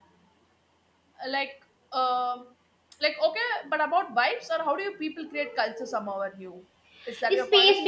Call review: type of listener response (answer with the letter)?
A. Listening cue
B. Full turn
B